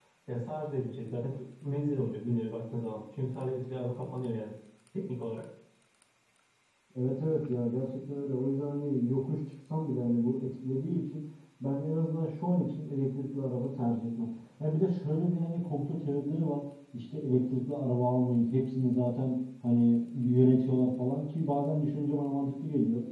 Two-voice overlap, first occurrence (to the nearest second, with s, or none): none